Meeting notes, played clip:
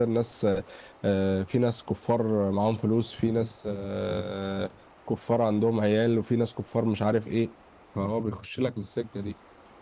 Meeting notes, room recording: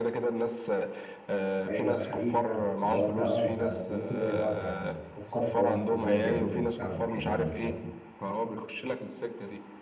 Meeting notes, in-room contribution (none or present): present